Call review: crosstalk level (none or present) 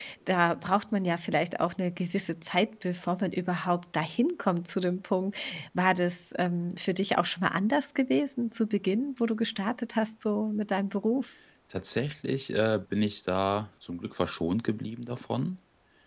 none